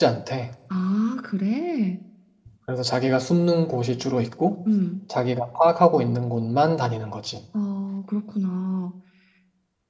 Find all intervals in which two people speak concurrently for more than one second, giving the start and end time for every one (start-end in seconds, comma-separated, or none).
none